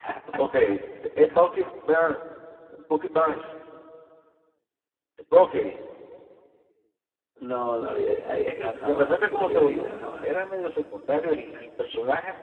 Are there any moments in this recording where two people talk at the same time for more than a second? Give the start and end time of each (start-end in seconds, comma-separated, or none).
8.3-10.3